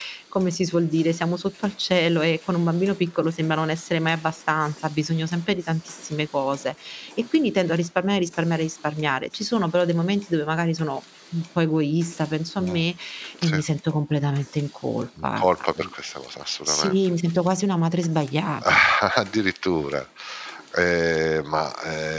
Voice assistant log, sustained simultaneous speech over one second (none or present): none